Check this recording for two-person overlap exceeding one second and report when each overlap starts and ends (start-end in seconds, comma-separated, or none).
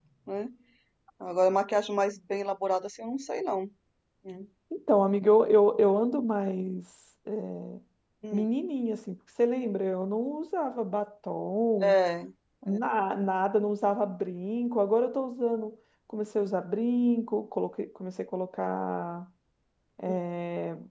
none